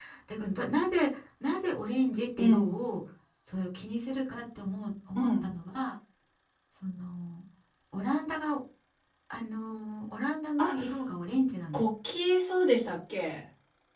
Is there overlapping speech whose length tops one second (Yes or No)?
No